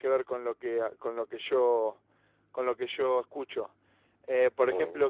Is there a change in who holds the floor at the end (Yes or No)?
No